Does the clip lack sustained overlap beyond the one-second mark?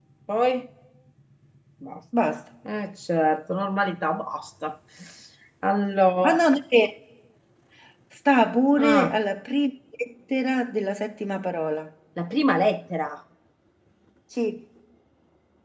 Yes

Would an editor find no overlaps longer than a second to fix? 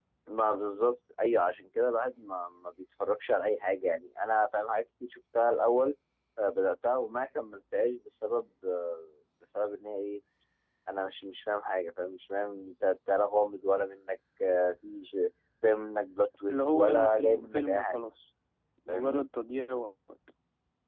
No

